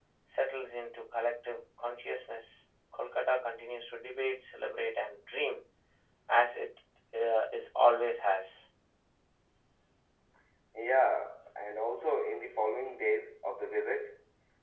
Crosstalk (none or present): none